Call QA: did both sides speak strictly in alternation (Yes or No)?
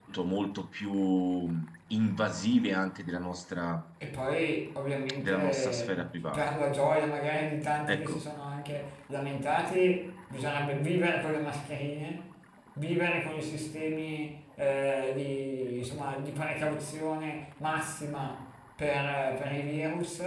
No